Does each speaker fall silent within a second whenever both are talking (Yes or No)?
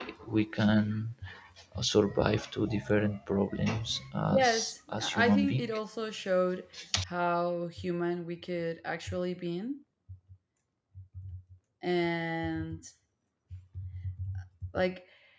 No